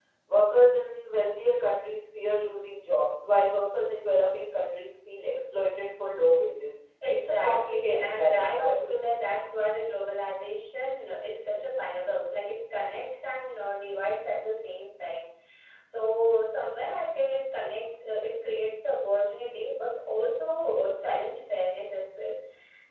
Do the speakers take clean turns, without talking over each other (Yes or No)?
No